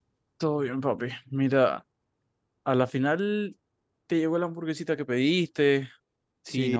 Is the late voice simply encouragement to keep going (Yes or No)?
No